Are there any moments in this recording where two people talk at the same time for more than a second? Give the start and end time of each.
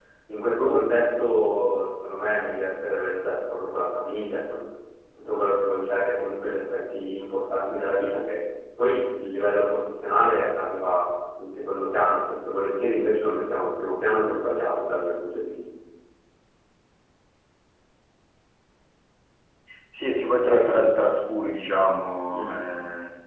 none

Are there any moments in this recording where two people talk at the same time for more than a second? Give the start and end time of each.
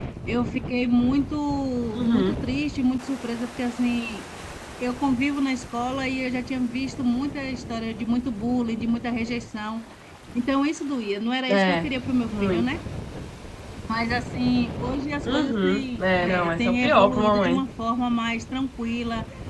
15.3-17.6

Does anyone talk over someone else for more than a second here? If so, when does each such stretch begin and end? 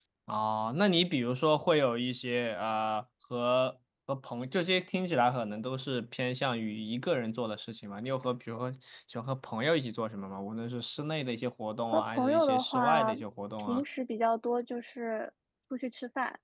11.9-13.1

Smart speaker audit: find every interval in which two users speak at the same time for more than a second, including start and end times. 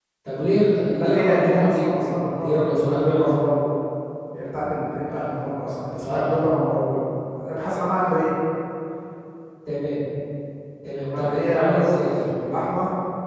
1.0-3.3, 11.0-12.3

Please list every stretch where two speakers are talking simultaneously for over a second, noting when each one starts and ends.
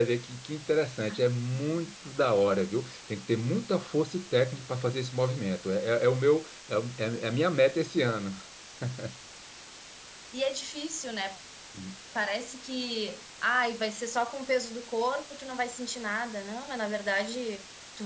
none

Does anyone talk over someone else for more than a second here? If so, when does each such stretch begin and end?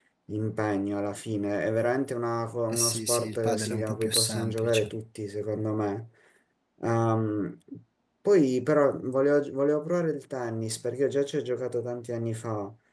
2.7-4.9

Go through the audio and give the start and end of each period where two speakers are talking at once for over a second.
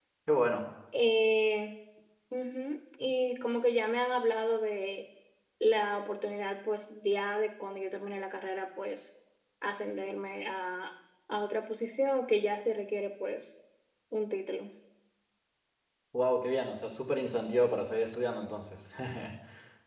none

